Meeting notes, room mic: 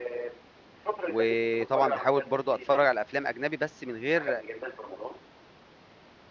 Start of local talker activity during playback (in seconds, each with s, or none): 1.1 s